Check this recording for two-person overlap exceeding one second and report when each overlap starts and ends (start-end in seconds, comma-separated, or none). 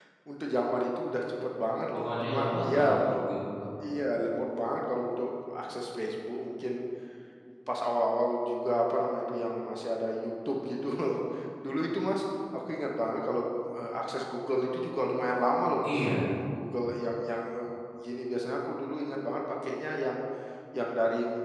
1.9-3.3